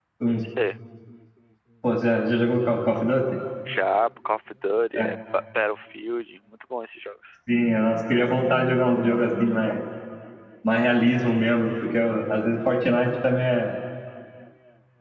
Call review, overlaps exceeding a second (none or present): none